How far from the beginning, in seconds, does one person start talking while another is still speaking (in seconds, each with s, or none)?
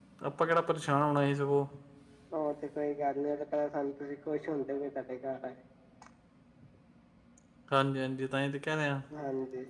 none